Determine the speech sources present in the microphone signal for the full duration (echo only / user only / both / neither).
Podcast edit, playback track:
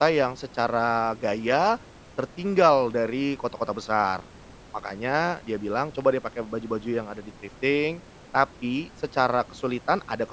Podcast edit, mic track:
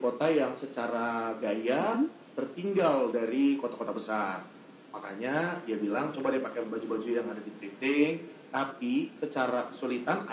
both